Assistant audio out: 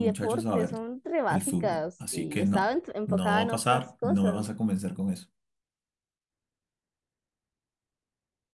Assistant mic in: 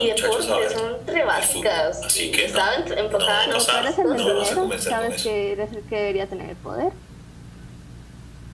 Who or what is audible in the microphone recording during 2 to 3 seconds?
echo only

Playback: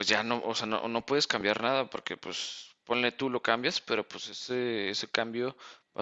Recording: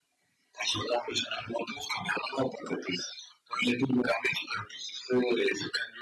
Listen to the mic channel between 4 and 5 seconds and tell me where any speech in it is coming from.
echo only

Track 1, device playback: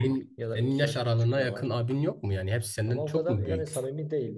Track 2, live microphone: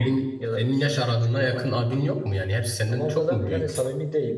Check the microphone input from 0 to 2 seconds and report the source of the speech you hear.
echo only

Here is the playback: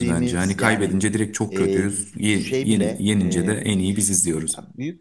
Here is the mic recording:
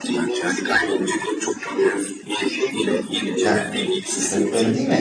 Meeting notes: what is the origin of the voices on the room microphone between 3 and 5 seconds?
both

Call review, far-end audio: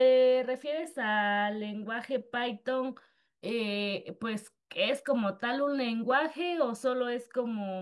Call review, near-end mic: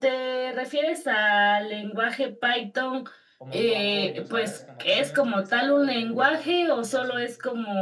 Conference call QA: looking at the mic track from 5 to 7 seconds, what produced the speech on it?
both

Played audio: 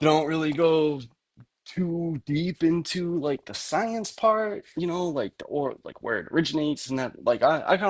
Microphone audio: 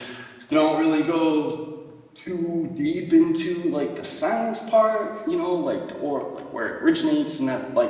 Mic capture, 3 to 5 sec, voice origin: echo only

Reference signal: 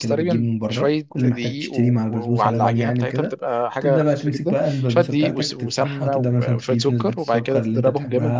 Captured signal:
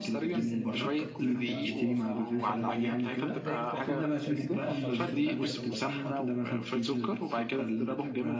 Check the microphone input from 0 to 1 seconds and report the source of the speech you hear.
both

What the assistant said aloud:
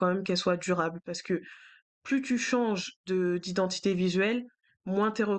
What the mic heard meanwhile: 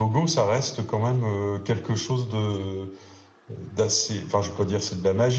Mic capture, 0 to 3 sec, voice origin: user only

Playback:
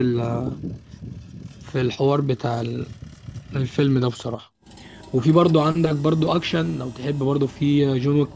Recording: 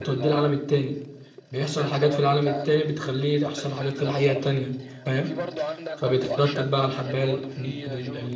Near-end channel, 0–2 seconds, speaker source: both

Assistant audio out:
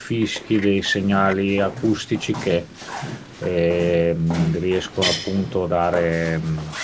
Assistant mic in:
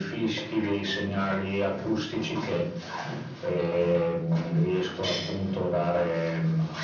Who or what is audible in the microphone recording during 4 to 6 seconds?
echo only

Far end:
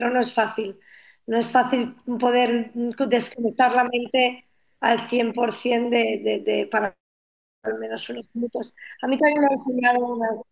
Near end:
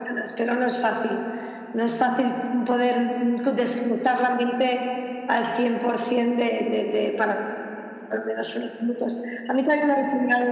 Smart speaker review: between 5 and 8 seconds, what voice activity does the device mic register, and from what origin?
echo only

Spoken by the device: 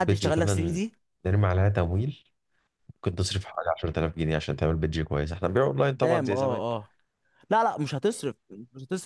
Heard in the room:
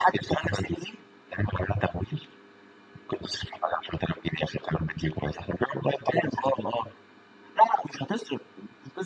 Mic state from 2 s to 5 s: echo only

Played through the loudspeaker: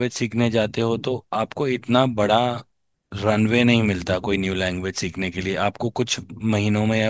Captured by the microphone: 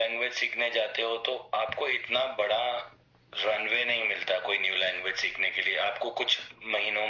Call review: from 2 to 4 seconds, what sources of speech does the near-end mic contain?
echo only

